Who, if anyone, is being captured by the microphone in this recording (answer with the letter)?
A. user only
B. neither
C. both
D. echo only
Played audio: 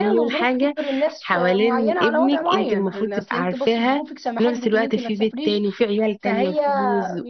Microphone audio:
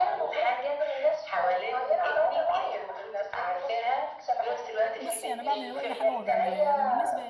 C